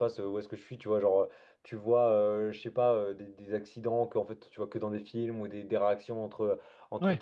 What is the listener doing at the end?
listening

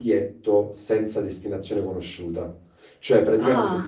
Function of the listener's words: listening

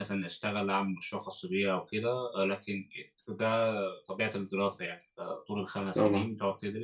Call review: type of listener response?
listening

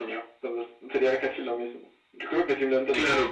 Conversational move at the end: taking over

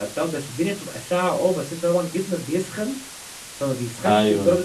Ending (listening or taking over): listening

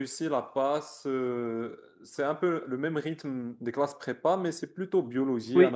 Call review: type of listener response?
taking over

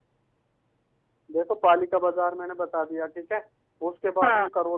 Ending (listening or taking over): listening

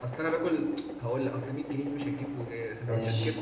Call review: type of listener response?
listening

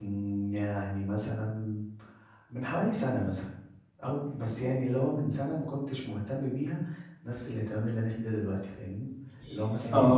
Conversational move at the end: listening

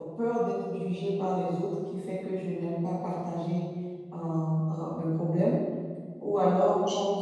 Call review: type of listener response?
listening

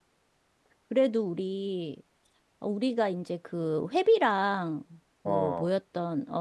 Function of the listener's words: listening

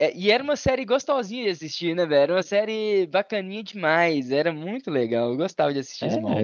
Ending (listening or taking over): taking over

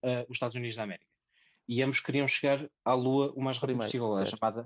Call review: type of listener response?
listening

